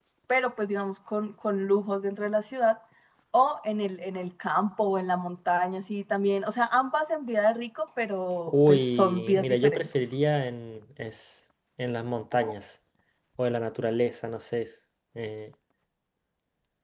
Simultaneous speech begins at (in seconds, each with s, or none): 8.5 s